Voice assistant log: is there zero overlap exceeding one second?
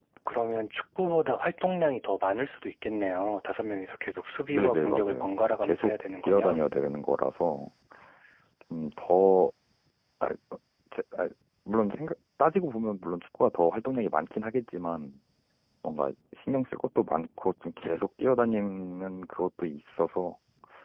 No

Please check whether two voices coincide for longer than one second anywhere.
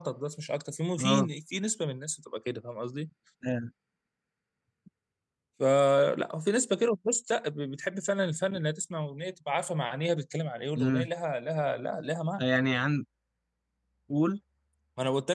No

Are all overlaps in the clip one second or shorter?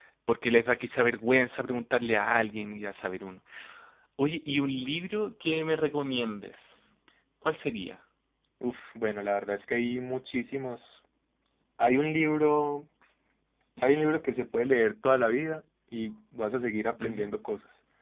Yes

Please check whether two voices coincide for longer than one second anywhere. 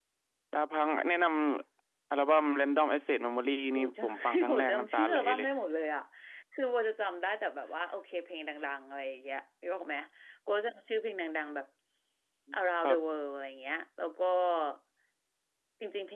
Yes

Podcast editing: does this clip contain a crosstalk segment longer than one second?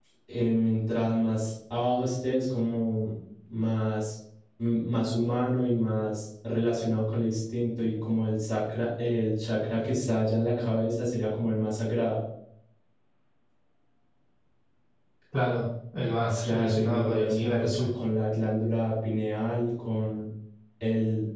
Yes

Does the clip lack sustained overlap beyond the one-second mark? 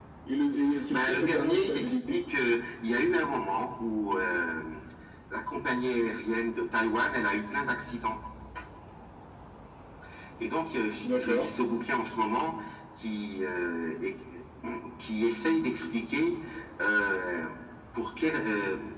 No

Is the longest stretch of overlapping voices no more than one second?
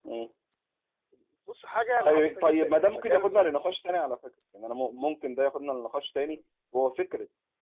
No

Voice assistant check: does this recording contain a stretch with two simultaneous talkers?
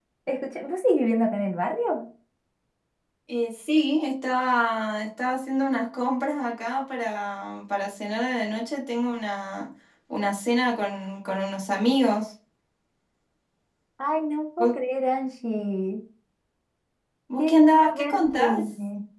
Yes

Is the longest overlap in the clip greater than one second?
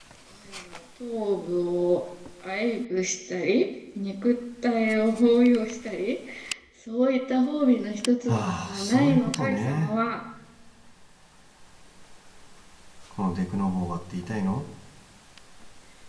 Yes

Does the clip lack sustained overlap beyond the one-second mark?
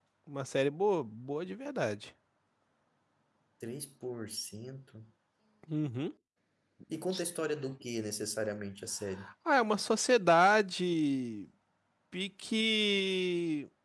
Yes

